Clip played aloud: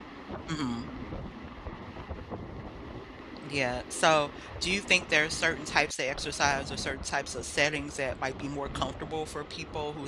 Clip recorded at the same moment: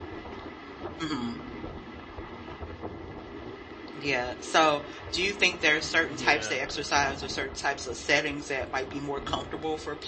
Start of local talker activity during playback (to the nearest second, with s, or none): 6 s